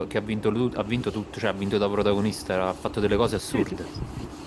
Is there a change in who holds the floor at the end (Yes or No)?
Yes